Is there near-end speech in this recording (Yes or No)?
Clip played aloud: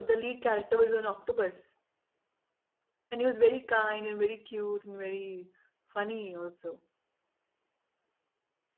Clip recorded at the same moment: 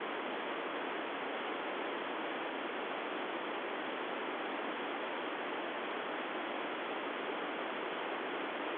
No